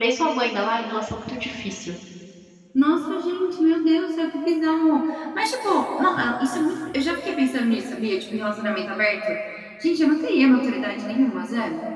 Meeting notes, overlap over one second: none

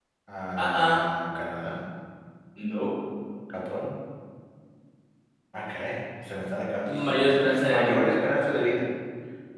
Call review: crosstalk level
present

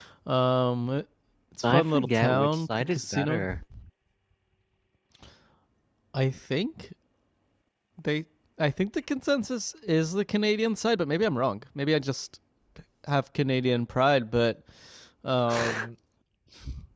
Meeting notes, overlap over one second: present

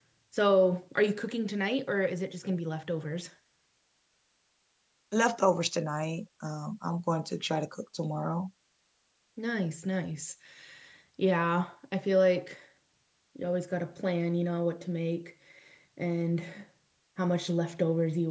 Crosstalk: none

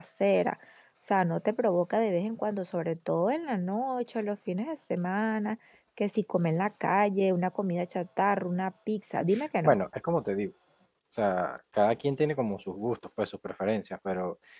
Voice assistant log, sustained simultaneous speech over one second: none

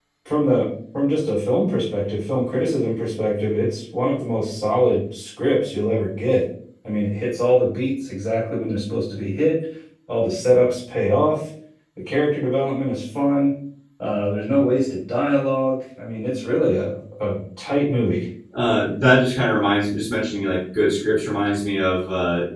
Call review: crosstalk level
none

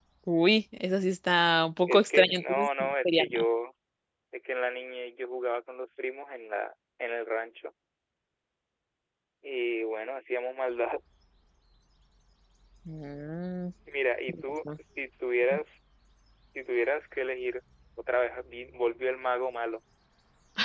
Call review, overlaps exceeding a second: present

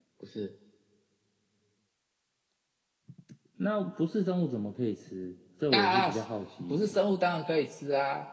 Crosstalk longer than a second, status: none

